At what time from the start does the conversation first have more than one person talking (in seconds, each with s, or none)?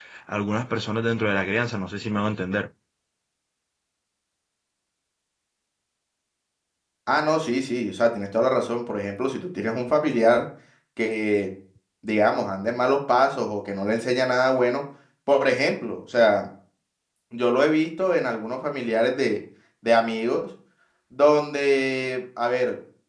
none